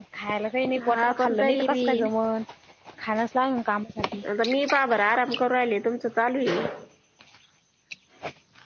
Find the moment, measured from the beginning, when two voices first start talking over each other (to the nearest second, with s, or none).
1 s